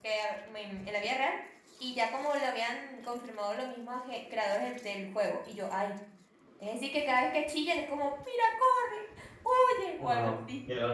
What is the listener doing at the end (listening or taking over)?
taking over